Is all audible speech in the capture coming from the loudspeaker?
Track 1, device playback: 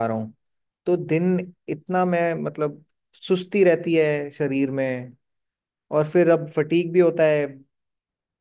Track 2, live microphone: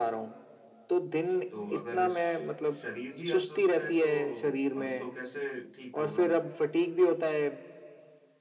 No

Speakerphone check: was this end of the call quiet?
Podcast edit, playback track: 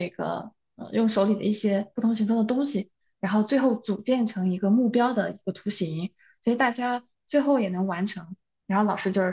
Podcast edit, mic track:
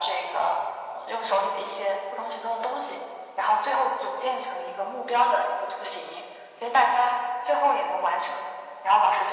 Yes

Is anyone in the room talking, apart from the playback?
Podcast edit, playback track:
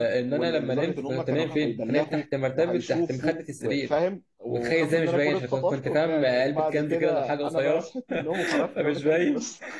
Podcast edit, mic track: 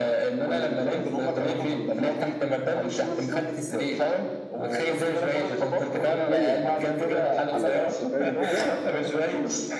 Yes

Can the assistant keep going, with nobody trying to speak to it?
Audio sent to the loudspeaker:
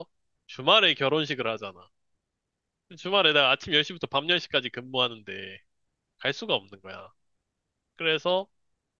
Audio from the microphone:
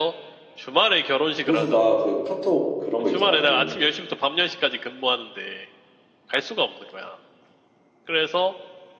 No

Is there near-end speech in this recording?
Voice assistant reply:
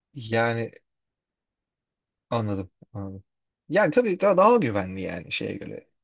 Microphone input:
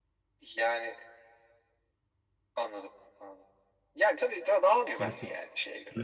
Yes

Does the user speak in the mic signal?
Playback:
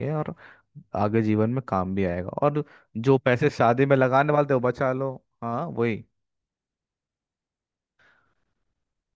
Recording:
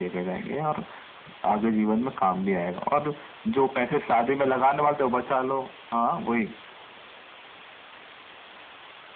No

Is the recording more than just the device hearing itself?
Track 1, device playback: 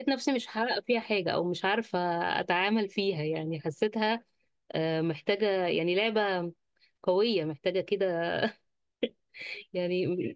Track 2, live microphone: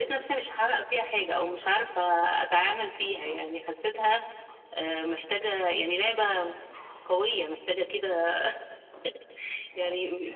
No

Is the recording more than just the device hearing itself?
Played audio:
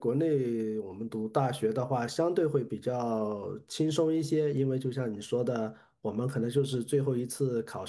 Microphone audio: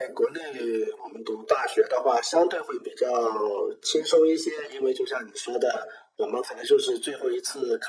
No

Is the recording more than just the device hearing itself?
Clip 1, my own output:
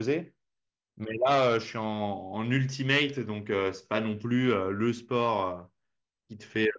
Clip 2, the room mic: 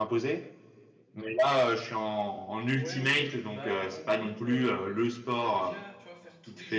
Yes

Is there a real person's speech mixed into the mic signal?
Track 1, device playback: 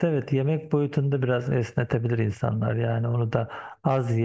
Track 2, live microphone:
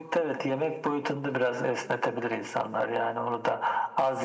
No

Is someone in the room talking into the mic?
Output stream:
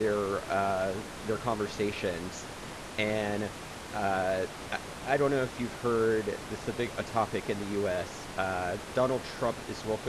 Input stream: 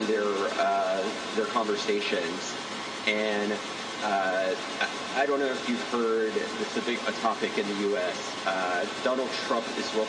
No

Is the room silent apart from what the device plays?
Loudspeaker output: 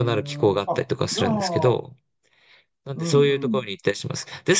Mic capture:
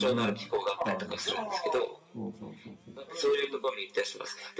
No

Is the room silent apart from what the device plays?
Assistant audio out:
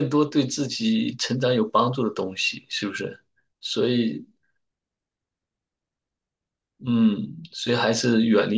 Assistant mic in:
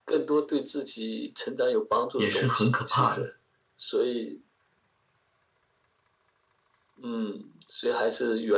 No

